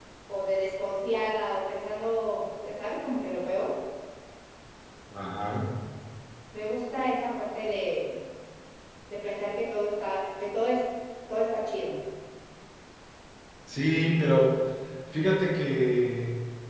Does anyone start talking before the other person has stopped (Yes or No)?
No